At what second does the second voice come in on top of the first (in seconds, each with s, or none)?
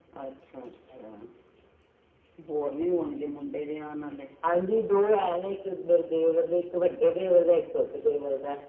none